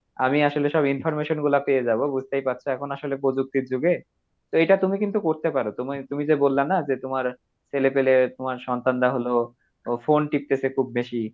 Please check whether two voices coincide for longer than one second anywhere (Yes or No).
No